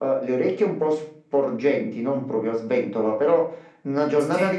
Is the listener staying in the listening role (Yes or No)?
Yes